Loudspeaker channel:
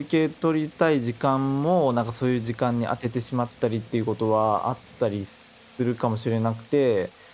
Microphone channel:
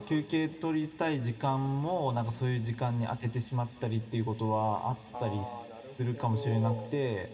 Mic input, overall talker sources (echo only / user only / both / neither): both